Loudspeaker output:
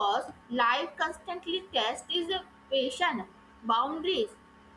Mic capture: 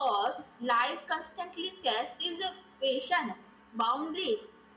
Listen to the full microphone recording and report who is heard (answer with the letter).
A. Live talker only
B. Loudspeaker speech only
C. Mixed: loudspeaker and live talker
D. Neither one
B